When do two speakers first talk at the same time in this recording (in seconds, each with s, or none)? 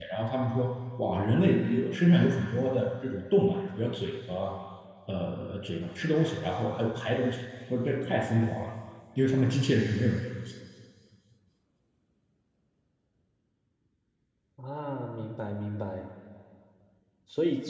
none